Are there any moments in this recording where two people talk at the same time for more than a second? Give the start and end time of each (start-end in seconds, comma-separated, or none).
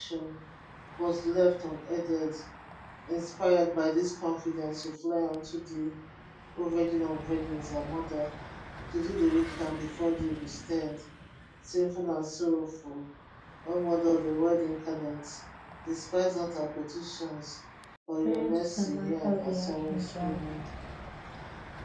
18.2-20.4